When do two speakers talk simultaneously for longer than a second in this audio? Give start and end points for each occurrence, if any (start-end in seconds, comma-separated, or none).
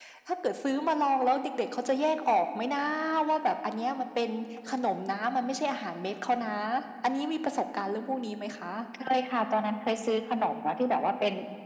none